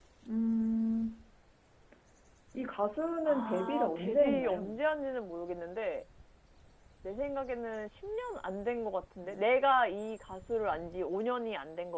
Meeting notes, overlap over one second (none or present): present